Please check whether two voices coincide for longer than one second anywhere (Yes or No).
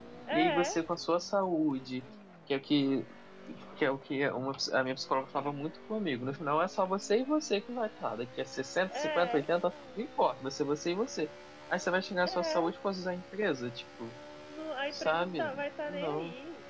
Yes